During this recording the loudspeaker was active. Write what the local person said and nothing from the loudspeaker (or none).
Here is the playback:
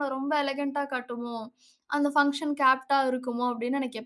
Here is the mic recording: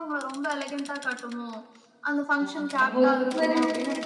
ஓ! அப்போ இந்த மாதிரி